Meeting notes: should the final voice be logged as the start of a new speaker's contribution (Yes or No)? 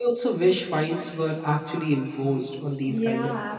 Yes